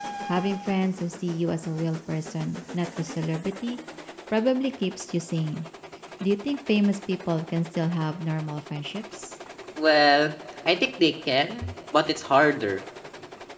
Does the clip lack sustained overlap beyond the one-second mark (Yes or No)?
Yes